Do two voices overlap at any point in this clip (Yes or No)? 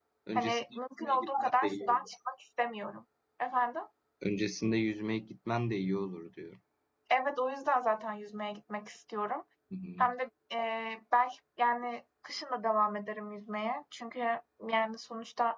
Yes